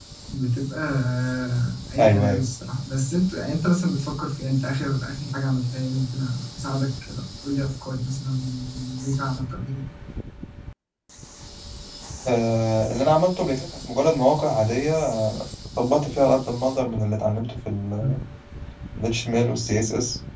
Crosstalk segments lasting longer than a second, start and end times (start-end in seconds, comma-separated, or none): none